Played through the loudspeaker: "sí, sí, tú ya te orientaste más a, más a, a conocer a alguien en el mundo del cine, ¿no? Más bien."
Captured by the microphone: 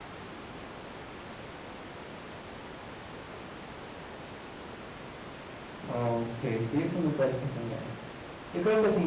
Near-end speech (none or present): present